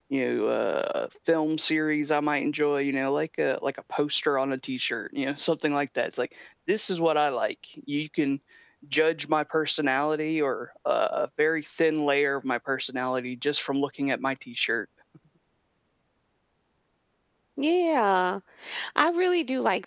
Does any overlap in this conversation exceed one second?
No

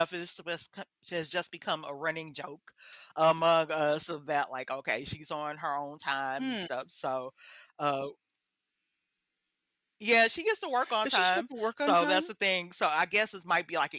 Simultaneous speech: Yes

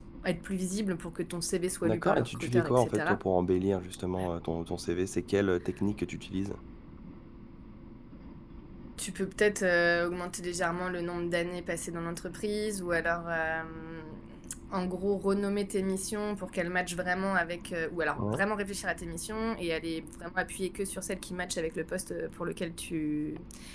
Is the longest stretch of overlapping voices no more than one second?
No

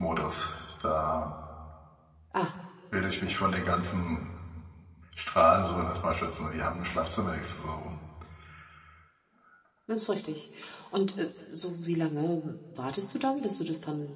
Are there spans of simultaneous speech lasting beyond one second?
No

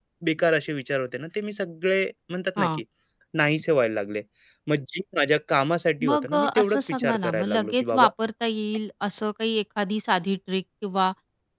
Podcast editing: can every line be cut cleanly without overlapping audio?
No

